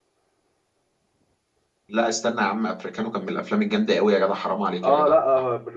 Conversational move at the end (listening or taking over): taking over